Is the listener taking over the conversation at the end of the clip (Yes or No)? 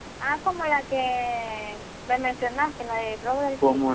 Yes